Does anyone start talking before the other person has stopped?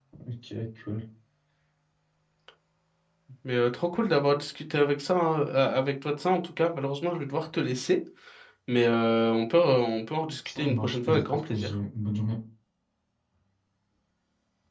Yes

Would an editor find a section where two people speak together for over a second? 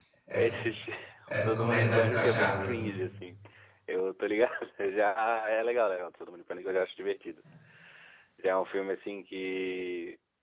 Yes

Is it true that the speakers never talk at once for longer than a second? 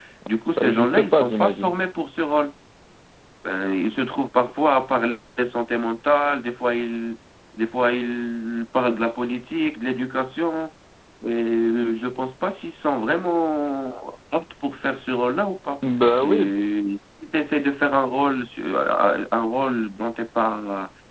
No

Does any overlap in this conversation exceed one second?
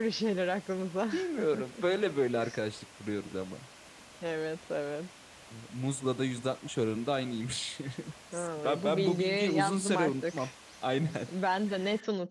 Yes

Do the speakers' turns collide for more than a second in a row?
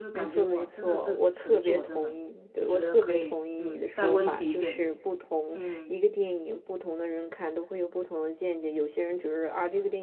Yes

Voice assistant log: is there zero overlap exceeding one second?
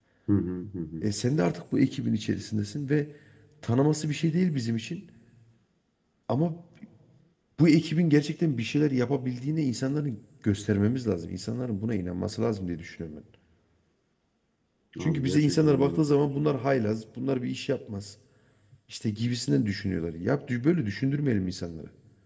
No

